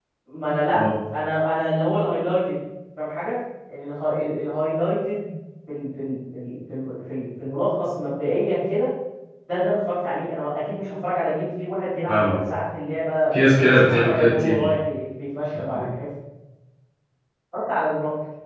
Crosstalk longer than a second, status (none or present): present